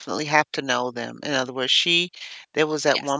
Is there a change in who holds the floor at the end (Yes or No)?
No